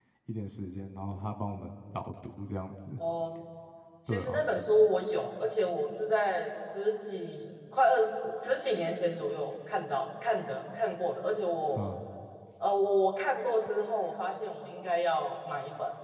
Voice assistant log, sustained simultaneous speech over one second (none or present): none